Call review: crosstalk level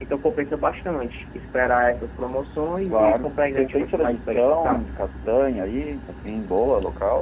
present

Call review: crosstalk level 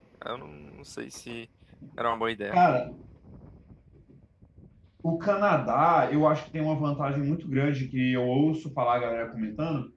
none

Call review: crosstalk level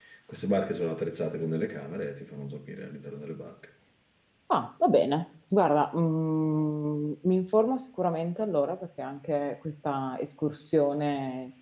none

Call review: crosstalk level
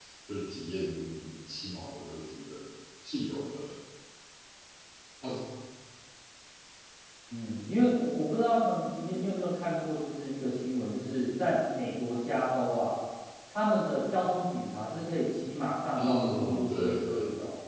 present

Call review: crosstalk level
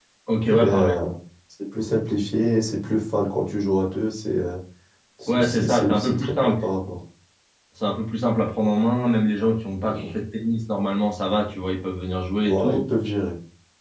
present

